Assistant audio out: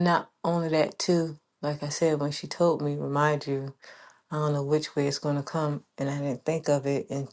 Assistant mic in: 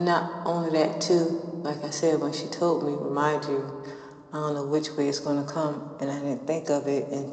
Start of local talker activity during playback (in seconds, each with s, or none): none